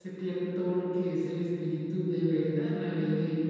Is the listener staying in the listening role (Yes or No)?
No